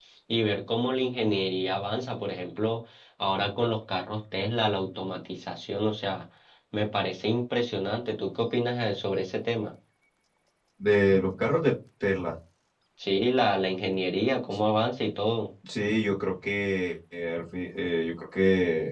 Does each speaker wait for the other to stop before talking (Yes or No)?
Yes